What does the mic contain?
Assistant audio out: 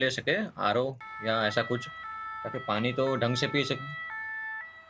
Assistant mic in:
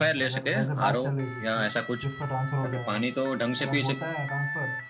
both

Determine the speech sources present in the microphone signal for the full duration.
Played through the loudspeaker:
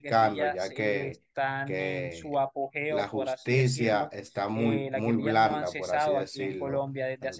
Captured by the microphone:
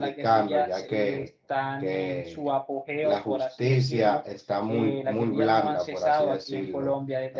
echo only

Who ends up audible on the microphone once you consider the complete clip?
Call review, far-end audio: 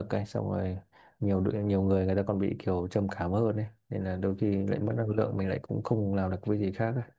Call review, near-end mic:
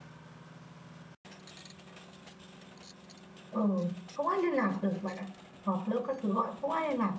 user only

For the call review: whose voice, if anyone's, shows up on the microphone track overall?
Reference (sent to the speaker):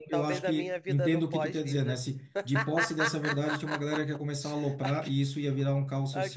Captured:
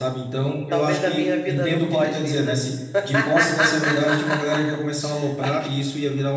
echo only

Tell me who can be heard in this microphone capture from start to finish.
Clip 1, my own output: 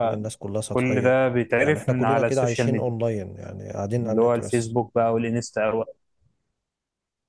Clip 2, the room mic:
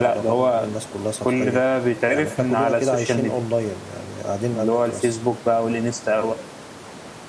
echo only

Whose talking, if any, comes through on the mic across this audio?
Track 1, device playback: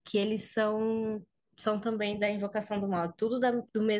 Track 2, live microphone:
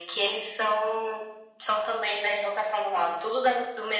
echo only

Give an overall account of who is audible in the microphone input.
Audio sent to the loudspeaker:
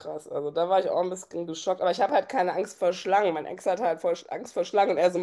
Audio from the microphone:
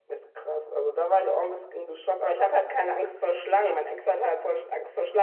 echo only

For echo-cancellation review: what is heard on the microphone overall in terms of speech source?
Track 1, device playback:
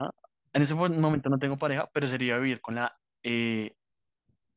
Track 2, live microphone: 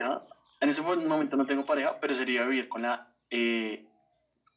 echo only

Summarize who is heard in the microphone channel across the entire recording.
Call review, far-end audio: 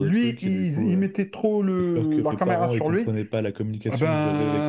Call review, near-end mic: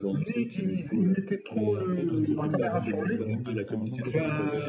both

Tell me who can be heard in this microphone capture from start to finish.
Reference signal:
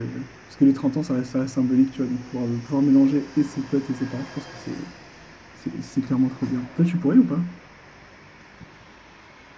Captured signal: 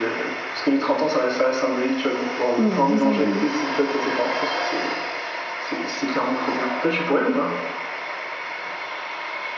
both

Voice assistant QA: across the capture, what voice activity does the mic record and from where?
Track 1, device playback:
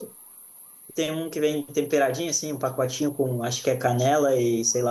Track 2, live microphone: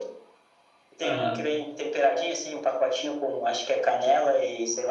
both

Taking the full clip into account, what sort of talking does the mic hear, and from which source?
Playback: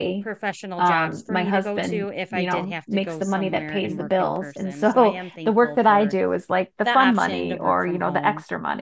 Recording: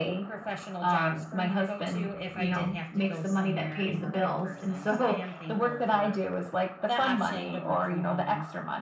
echo only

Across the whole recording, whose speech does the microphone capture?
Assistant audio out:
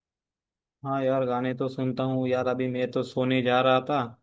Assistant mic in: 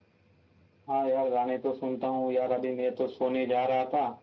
echo only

